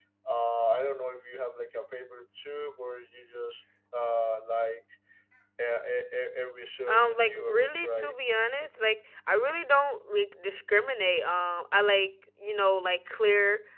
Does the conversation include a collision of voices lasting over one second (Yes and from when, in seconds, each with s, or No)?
Yes, from 6.9 s